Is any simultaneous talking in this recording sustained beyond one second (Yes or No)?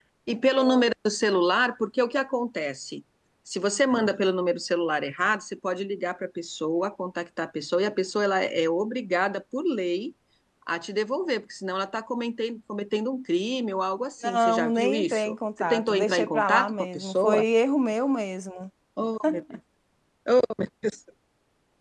Yes